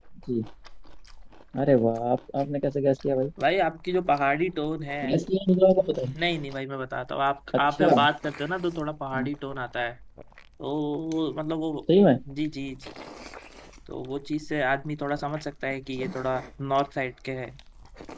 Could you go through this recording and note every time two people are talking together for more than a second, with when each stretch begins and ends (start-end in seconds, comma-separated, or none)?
none